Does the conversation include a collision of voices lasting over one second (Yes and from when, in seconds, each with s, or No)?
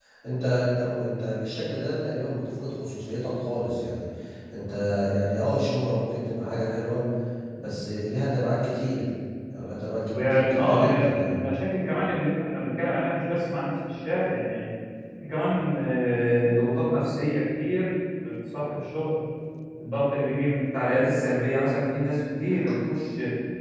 Yes, from 10.1 s